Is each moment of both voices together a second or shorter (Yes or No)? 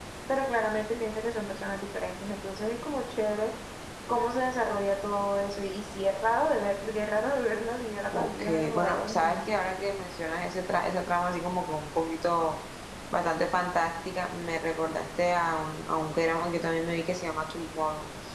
No